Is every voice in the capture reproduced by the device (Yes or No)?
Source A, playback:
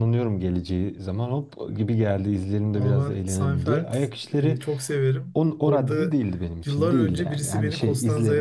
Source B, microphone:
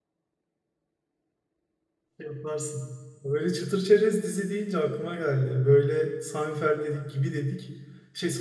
No